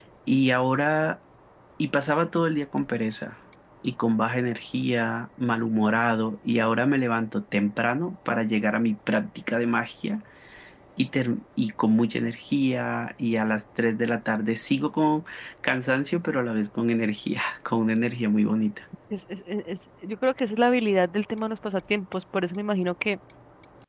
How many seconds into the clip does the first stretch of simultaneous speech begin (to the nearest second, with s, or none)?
none